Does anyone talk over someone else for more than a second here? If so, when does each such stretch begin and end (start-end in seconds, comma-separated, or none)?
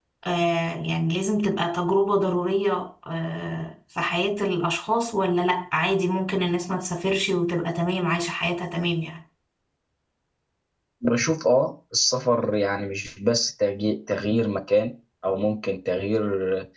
none